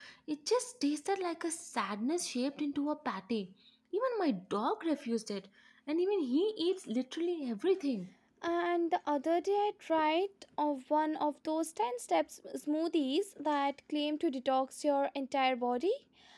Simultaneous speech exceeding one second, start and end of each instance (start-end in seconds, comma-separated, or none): none